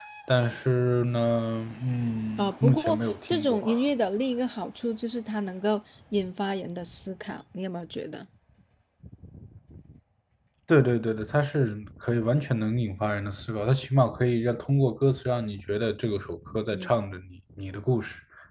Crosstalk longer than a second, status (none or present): present